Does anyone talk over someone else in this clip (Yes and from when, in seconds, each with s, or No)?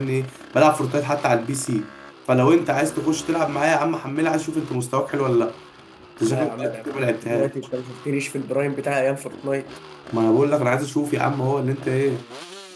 Yes, from 6.3 s